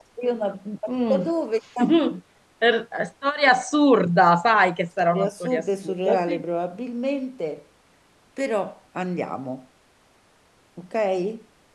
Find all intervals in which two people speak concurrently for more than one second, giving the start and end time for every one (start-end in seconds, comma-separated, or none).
5.0-6.4